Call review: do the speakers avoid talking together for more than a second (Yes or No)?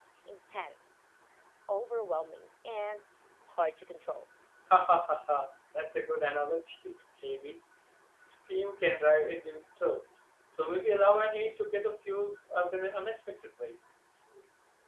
Yes